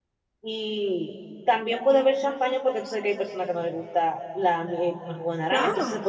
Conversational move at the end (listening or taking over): listening